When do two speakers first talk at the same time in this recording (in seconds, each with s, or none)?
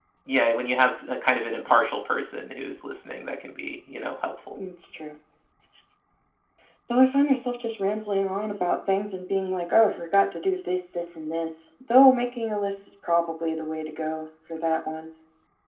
none